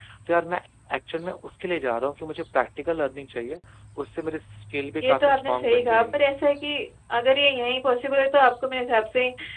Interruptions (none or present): present